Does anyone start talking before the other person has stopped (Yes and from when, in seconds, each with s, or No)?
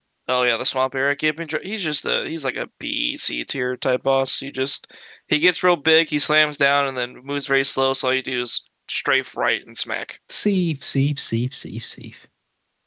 No